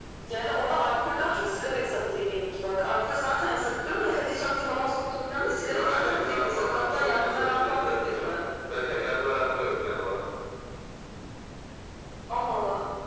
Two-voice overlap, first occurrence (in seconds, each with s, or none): 5.7 s